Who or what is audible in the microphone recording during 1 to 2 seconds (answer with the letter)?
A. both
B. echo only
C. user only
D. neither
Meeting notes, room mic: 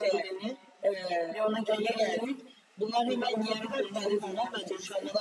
B